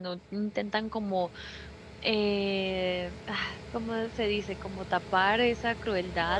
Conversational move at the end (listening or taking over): listening